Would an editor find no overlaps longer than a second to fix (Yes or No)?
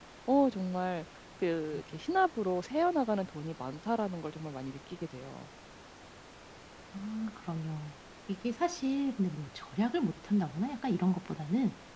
Yes